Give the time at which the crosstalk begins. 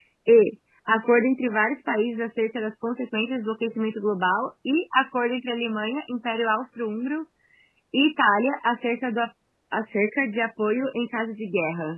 none

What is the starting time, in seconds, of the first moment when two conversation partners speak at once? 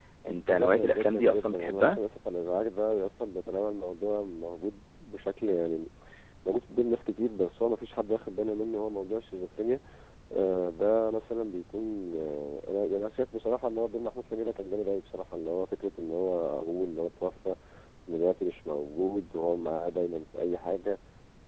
0.5 s

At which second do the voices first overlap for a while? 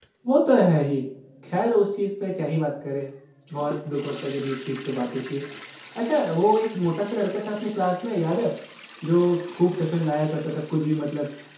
none

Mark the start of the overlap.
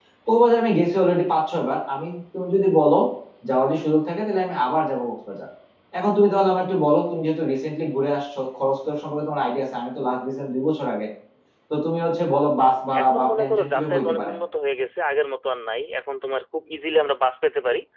12.9 s

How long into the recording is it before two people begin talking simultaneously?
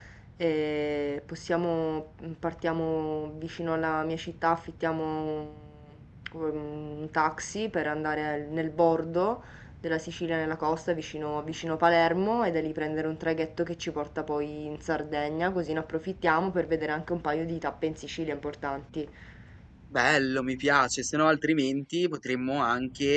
none

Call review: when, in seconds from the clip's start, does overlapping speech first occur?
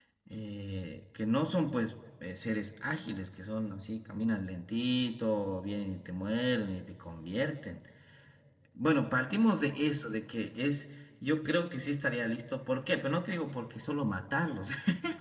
none

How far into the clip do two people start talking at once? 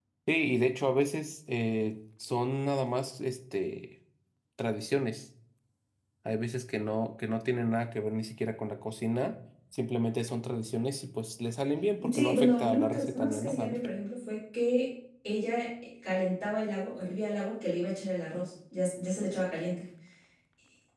12.0 s

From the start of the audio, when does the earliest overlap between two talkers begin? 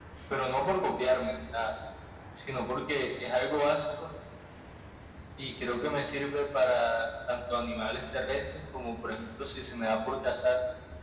none

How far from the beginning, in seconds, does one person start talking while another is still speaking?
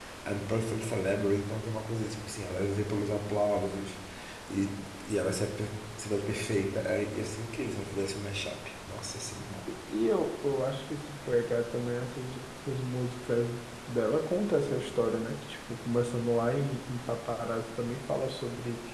none

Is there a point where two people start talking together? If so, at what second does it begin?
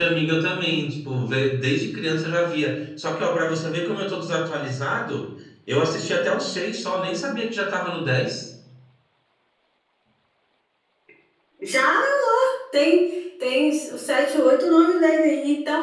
none

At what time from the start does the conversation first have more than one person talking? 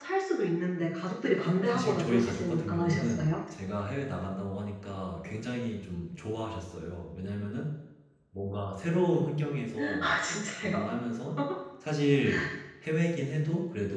1.7 s

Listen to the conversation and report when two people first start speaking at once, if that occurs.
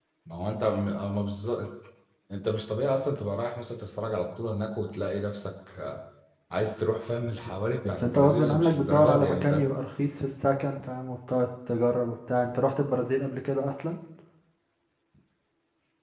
7.8 s

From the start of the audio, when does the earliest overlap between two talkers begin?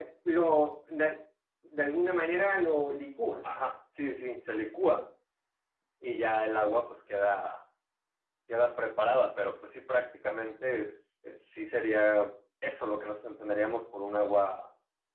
none

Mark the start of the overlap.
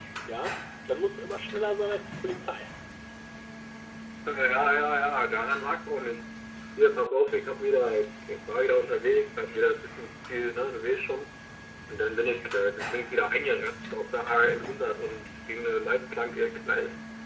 none

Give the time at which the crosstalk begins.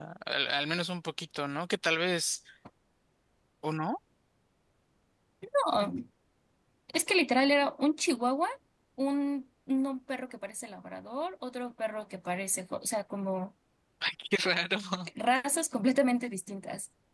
none

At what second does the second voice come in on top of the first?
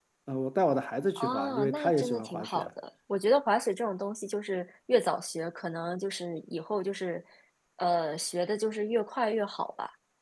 1.2 s

